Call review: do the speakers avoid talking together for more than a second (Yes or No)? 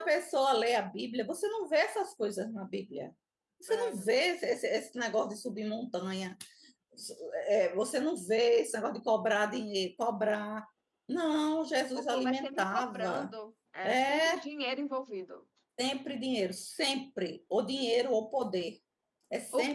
No